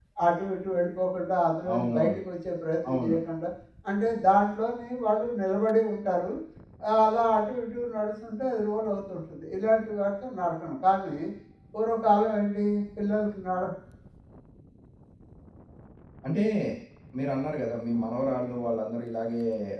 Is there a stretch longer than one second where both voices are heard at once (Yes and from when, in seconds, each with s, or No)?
No